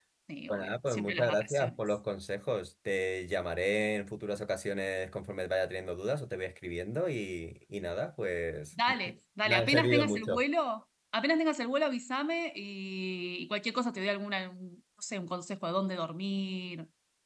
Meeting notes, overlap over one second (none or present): present